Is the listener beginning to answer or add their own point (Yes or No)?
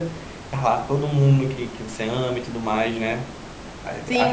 Yes